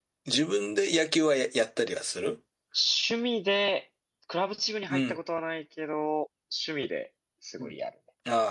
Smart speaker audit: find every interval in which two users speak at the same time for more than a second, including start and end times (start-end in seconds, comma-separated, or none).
none